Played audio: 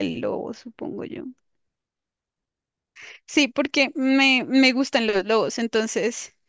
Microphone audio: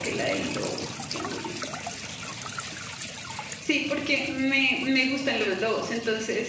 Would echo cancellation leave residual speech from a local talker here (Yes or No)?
No